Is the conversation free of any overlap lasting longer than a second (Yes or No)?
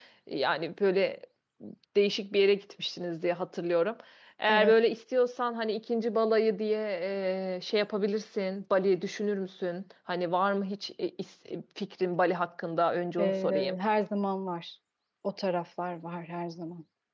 Yes